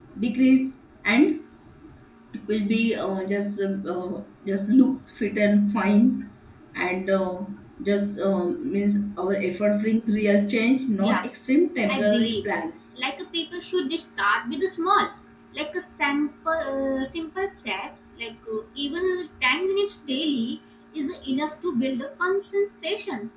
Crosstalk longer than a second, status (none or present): none